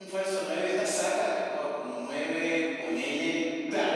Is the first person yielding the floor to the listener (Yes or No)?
Yes